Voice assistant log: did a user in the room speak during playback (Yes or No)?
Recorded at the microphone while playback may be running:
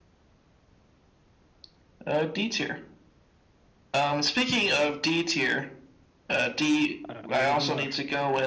Yes